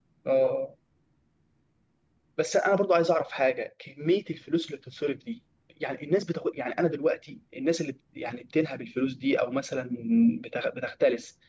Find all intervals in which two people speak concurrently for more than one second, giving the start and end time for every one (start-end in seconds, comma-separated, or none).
none